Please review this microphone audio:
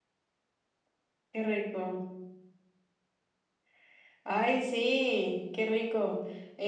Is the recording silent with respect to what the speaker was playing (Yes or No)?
No